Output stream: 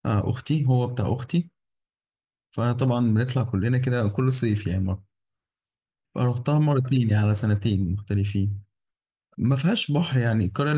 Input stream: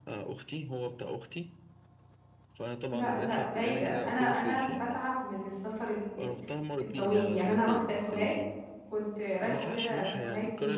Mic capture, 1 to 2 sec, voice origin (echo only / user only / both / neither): echo only